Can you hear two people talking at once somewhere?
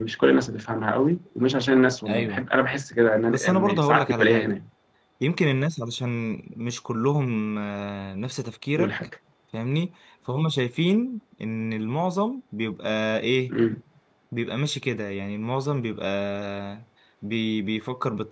Yes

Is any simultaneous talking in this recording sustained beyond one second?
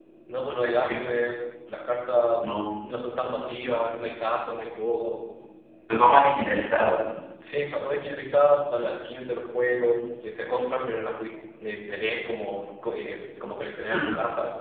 No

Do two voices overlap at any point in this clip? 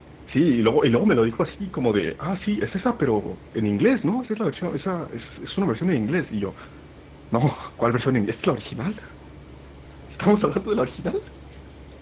No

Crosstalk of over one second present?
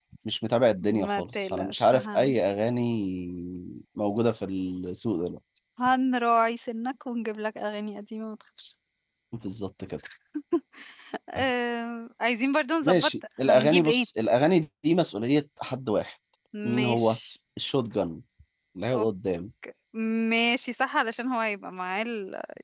Yes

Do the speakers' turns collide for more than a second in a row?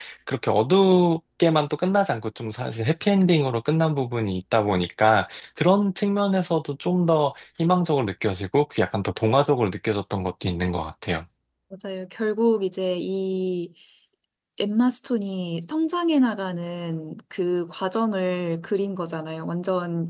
No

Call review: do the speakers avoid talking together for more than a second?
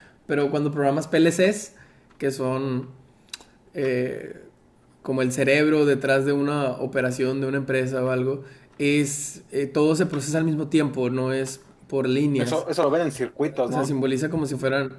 Yes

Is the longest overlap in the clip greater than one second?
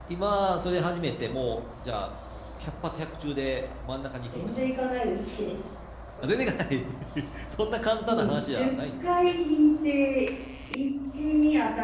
Yes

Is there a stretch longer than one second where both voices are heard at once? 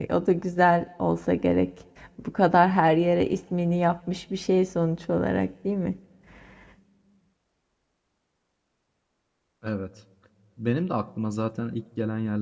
No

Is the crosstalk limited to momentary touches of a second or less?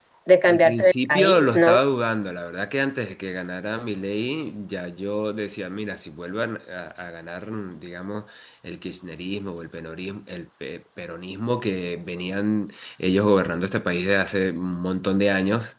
No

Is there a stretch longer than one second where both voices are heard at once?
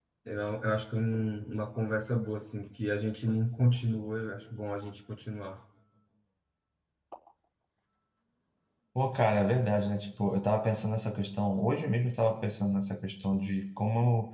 No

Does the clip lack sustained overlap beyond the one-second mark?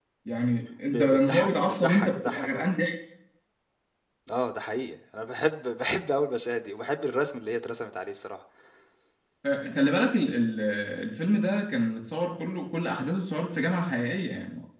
No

